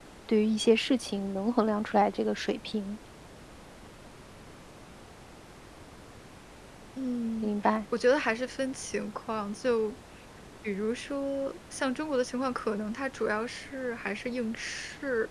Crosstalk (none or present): none